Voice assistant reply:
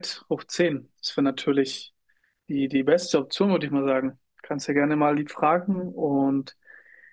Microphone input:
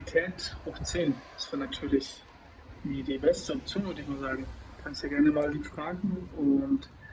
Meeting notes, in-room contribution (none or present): none